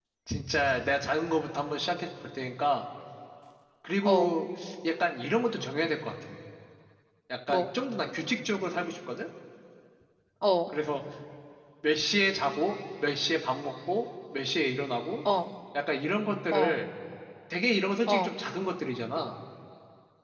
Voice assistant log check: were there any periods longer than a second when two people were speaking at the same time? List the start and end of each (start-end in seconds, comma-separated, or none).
none